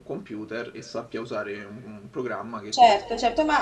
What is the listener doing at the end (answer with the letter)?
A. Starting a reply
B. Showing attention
A